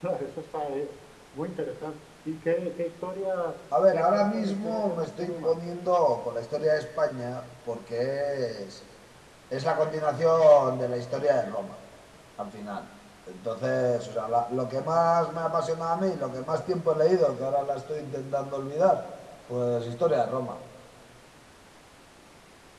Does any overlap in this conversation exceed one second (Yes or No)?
Yes